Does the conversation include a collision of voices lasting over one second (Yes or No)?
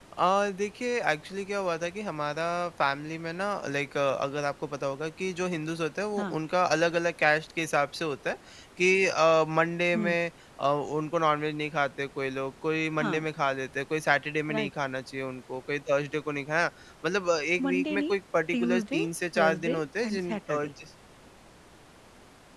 Yes